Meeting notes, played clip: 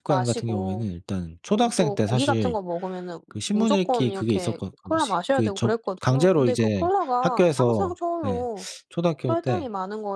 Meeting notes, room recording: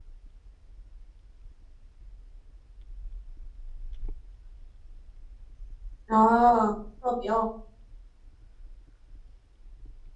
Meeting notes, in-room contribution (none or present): present